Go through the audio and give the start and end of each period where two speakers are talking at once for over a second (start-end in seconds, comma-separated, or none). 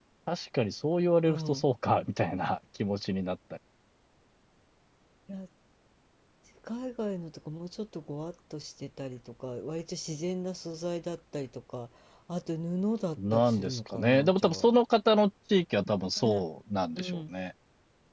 13.3-14.7